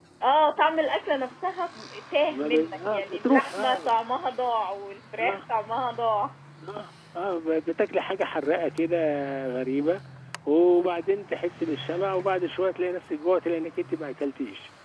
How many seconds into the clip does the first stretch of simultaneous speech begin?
2 s

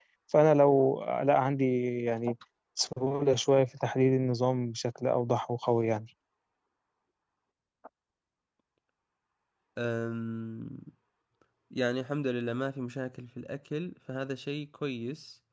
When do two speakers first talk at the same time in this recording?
none

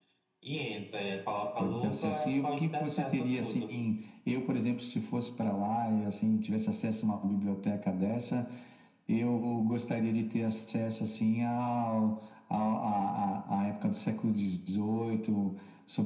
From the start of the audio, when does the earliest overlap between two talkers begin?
2 s

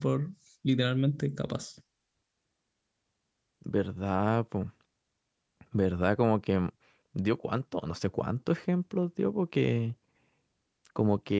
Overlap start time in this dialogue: none

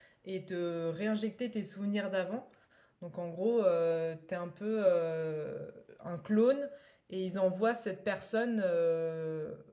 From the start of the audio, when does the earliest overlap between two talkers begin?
none

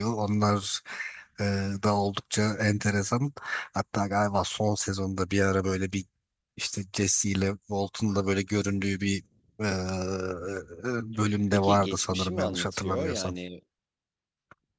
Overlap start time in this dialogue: 12 s

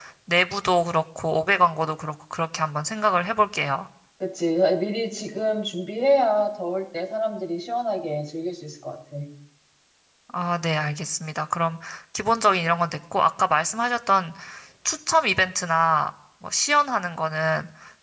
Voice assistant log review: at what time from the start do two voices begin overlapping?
none

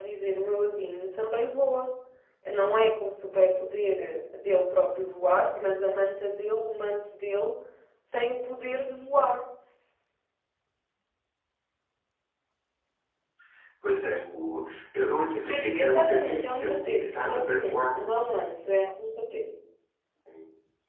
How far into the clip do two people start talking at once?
16 s

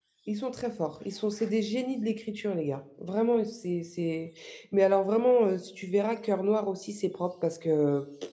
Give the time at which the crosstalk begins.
none

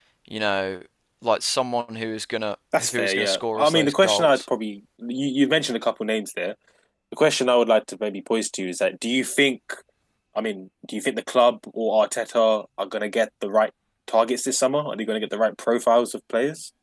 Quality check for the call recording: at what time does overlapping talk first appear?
3 s

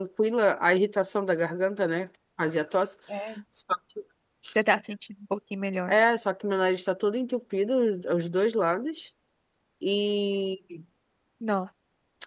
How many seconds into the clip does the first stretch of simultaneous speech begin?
none

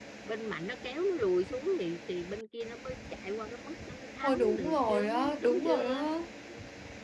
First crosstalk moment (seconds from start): 4 s

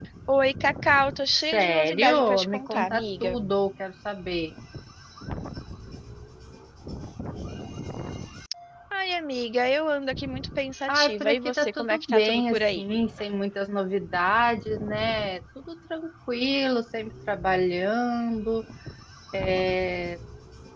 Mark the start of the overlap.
1 s

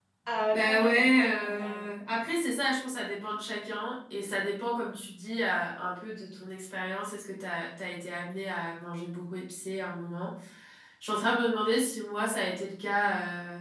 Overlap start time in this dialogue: 1 s

